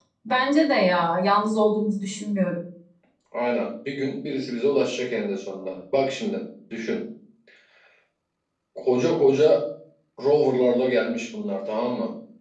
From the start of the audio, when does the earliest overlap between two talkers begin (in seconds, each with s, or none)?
none